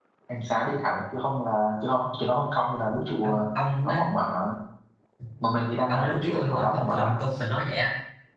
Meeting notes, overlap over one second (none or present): present